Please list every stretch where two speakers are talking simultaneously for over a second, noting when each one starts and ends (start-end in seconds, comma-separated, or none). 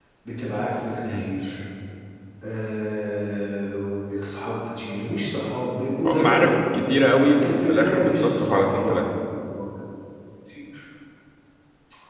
7.2-9.0